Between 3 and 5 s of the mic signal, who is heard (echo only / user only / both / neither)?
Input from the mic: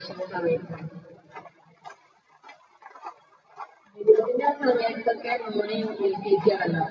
echo only